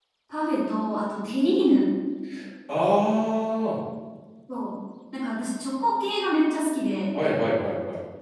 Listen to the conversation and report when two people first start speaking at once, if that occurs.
none

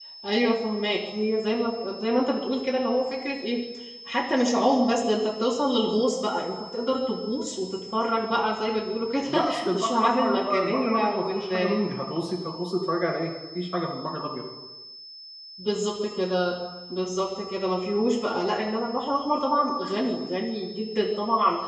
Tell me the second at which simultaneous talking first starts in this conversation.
9.3 s

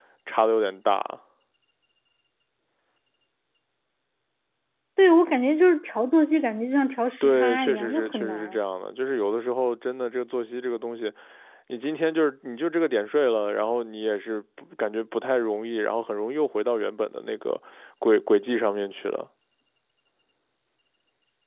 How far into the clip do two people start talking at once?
7.2 s

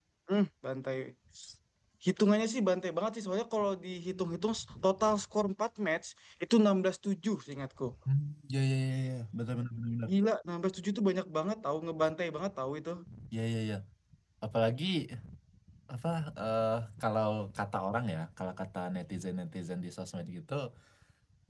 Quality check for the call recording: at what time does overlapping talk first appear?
none

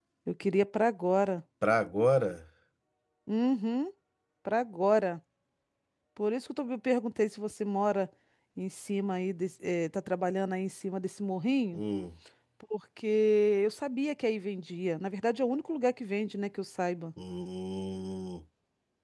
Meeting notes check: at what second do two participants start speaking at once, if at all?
none

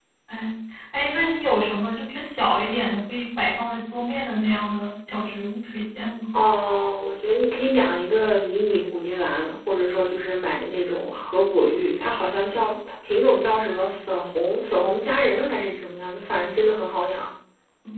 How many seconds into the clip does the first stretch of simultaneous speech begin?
none

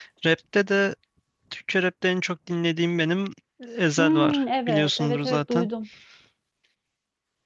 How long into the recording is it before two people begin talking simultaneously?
4.0 s

